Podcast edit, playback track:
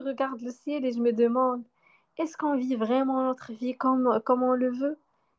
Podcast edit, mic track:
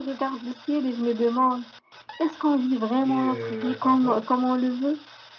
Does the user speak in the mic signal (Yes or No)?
Yes